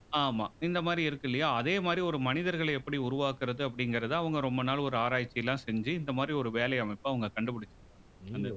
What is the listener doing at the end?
taking over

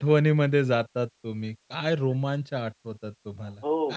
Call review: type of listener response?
taking over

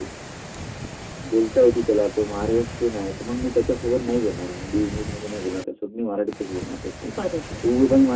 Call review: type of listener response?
listening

